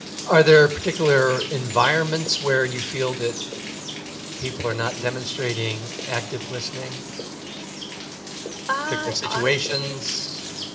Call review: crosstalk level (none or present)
present